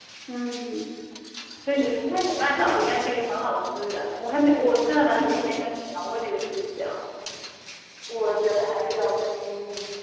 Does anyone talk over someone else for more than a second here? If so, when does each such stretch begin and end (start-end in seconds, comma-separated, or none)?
1.7-2.9